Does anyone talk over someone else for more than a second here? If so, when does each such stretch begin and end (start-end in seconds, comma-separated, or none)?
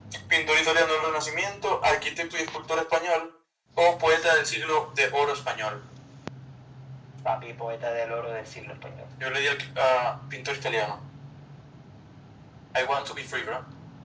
none